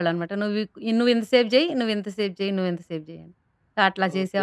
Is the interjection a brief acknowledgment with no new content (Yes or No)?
Yes